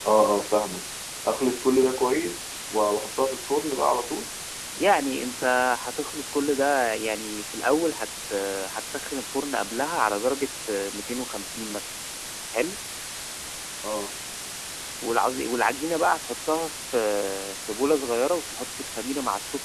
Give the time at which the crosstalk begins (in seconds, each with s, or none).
none